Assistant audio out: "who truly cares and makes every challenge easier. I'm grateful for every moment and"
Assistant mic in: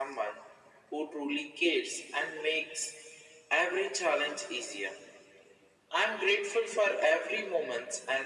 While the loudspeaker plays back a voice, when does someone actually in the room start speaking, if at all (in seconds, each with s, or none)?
none